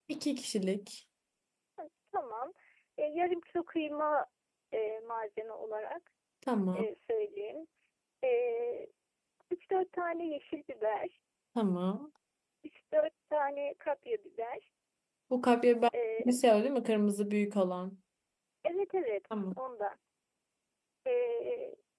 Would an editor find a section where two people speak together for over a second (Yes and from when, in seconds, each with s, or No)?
No